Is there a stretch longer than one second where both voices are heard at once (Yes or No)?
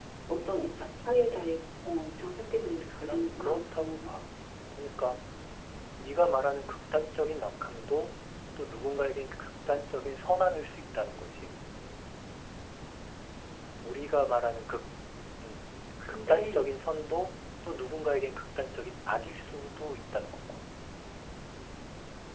Yes